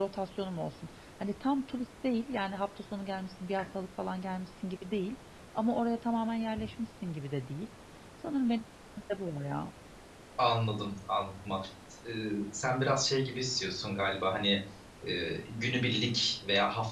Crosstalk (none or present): none